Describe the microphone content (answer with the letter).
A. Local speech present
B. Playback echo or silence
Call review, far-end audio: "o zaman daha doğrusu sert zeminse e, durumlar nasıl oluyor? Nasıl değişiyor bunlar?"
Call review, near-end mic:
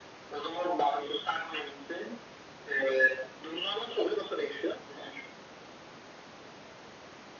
B